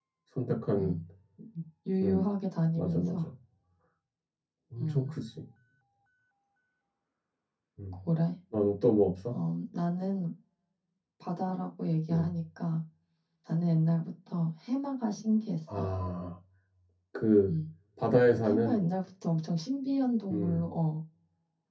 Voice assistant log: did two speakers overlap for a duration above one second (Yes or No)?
No